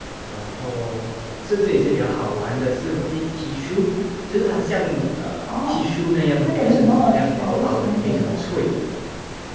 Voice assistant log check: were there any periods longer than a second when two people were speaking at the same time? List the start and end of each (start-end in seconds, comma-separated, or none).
6.4-8.7